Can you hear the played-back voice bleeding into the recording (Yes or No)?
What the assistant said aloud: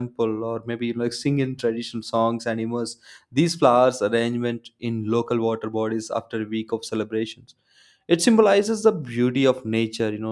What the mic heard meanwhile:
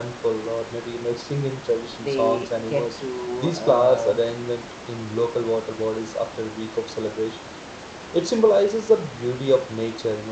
Yes